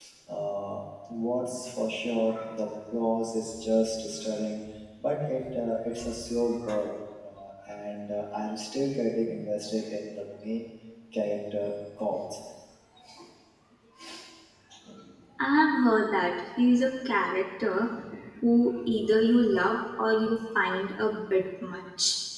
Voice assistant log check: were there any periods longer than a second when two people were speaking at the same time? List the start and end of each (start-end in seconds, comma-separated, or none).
none